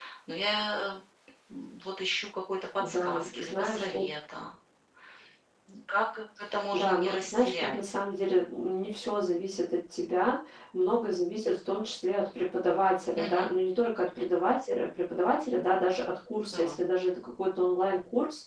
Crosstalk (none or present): present